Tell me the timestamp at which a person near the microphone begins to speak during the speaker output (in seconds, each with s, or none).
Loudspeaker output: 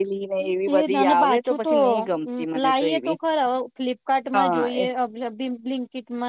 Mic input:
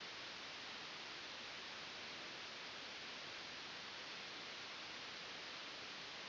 none